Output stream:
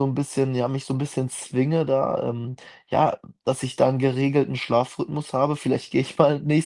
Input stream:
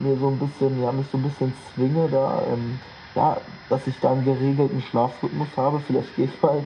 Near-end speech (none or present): none